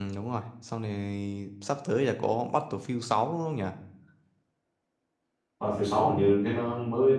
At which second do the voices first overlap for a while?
none

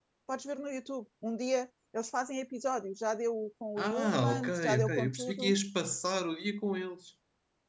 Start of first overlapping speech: 3.8 s

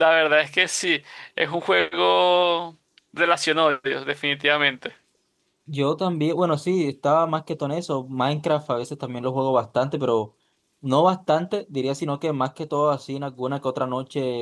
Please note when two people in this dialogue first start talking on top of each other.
none

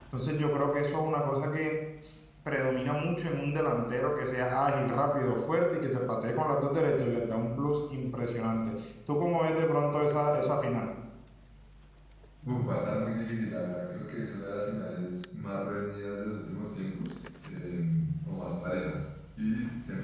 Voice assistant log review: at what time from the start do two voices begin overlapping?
none

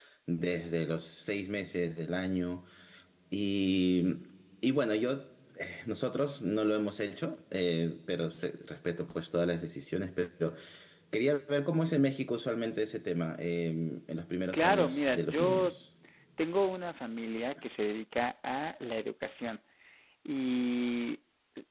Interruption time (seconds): 14.5 s

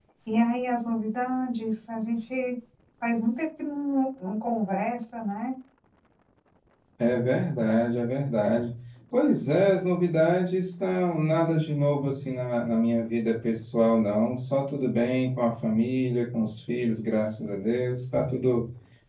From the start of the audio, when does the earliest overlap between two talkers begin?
none

